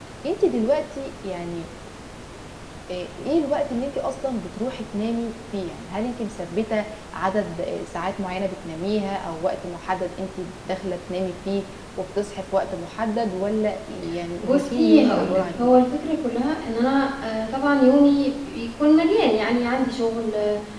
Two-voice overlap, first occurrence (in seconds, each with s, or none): 14.4 s